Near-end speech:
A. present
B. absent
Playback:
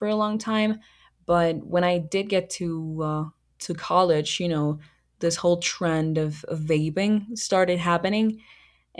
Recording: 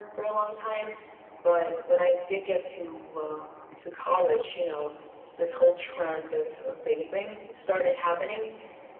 B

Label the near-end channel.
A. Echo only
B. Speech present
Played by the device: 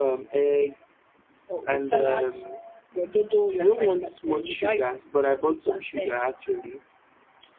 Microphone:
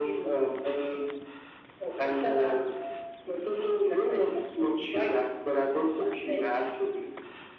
A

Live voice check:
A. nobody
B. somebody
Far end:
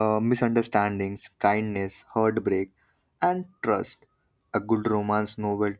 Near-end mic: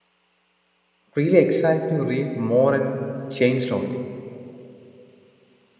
B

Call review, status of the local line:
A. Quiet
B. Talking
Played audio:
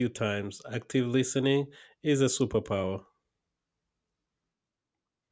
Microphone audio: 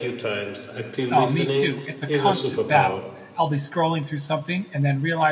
B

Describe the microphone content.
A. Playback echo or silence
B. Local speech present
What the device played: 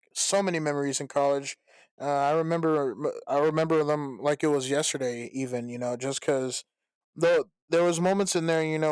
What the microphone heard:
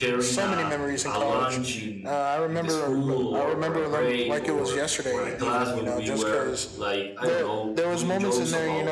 B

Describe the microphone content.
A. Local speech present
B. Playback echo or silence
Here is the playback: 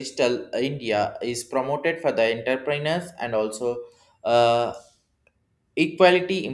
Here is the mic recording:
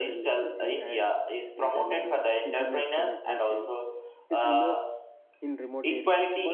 A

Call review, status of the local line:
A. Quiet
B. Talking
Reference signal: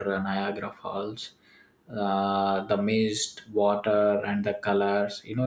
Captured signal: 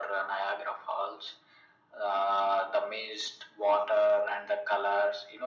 A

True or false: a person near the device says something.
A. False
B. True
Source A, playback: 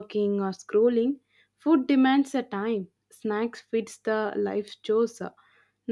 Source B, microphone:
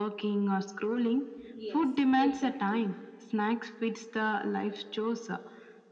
B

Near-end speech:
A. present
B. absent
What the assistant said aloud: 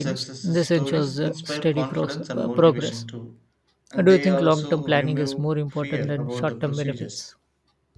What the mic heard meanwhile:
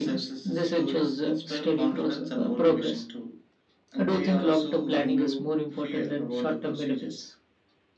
B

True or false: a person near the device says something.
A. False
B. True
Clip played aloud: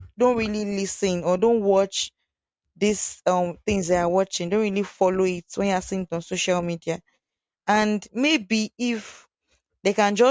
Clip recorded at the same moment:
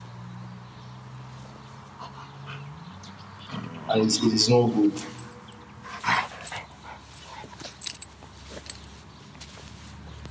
B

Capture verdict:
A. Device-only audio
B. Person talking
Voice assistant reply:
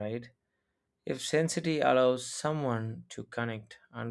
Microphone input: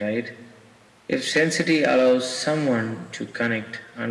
A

